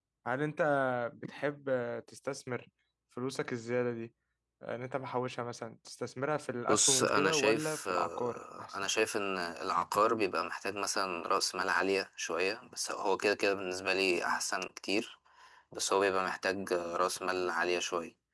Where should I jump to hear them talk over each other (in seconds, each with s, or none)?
6.7 s